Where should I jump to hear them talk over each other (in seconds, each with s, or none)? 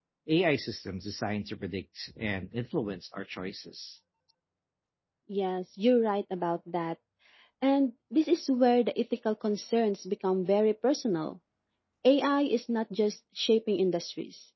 none